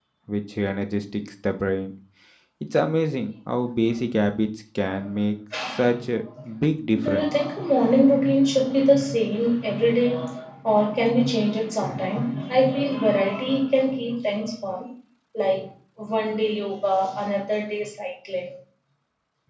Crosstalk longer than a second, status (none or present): none